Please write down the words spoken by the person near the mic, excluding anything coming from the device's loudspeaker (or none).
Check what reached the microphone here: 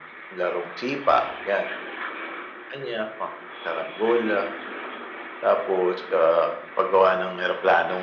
none